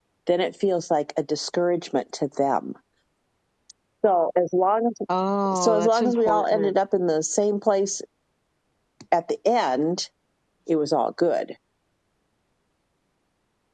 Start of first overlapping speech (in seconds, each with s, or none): 5.5 s